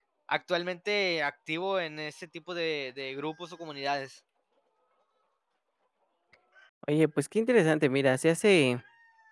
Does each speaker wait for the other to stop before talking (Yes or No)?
Yes